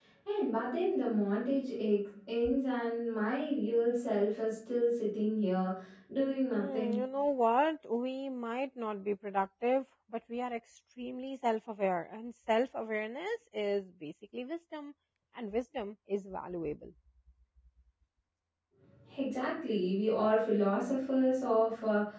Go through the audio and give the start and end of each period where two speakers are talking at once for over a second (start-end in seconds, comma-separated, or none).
none